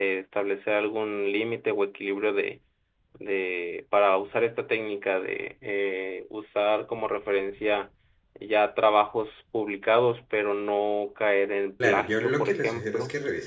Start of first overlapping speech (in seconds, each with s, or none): 11.8 s